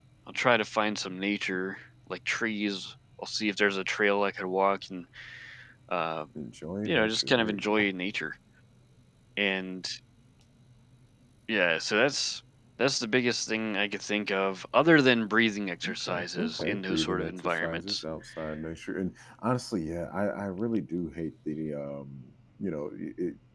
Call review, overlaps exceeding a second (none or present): present